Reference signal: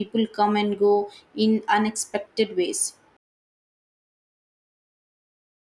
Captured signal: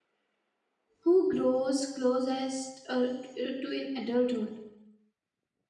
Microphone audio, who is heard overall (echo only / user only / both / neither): user only